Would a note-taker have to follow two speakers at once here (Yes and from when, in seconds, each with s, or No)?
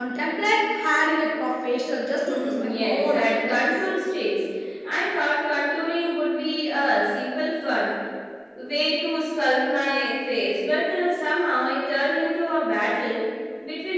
Yes, from 2.3 s